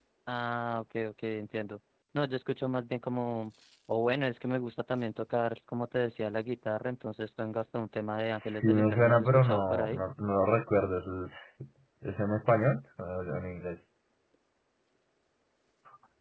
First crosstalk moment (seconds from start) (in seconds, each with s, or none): 8.3 s